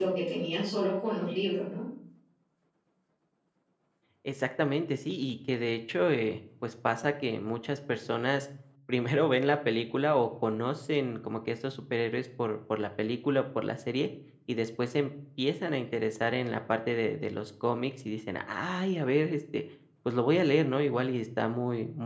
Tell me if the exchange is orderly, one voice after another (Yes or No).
Yes